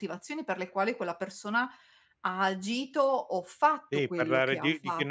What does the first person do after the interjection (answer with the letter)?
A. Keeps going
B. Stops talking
B